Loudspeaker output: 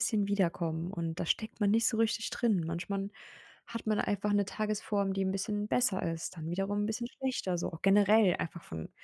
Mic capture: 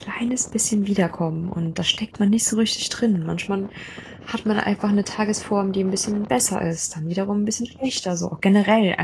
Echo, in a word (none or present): present